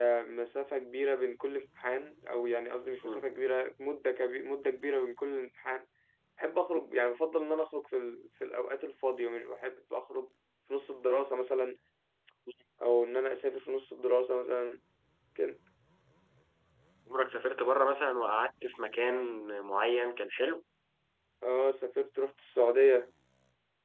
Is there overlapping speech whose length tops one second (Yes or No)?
No